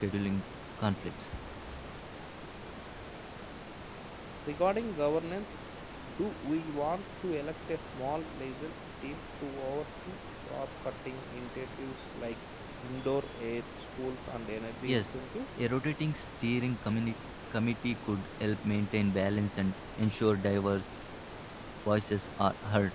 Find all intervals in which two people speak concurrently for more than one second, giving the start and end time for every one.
none

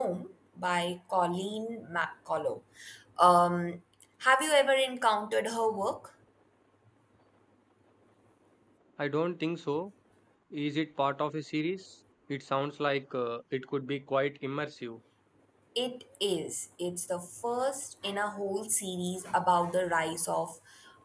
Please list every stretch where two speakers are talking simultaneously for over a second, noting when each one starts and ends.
none

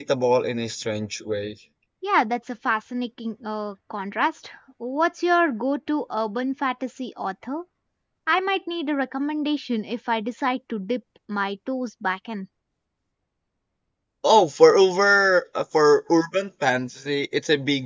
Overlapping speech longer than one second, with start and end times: none

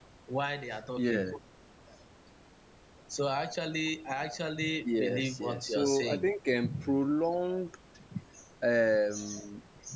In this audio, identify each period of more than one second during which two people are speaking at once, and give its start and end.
4.8-6.3

